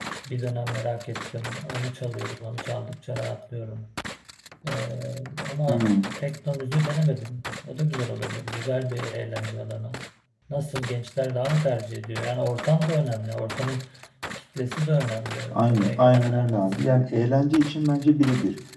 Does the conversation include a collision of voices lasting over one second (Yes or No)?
Yes